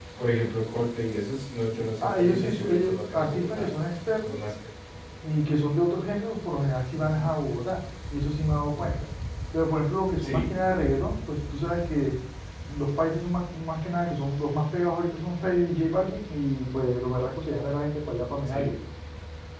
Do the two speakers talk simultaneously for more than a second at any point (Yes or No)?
Yes